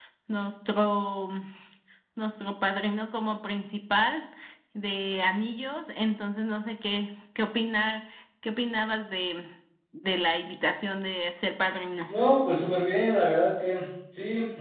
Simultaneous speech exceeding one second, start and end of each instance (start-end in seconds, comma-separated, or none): none